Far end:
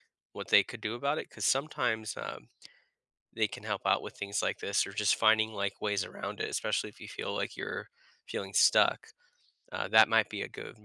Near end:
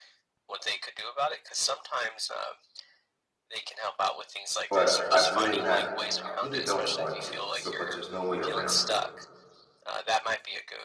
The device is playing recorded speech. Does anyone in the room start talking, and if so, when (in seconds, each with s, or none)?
4.7 s